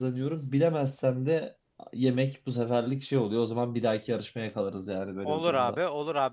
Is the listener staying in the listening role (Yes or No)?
No